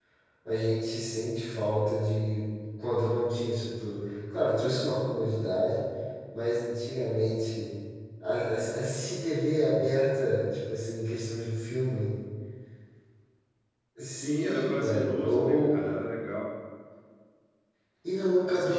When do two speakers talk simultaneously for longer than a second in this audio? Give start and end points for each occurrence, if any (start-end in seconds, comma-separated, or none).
14.2-15.7